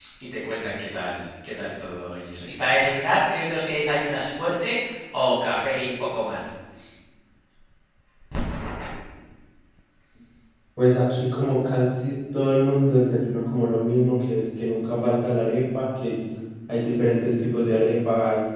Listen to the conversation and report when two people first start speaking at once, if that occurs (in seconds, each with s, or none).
none